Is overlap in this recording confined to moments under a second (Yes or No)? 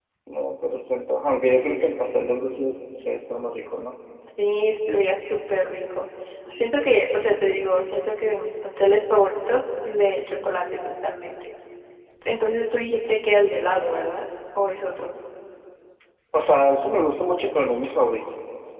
Yes